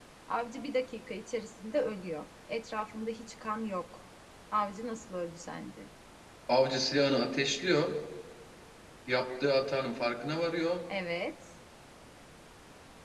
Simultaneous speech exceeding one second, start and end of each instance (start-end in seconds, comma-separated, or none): none